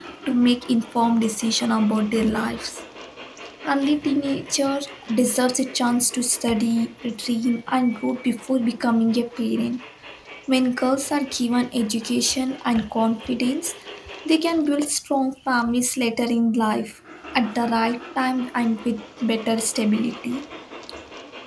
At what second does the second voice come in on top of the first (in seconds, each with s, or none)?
none